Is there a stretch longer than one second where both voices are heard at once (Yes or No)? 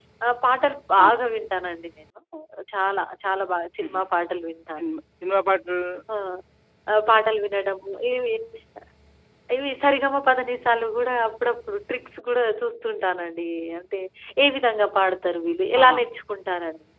No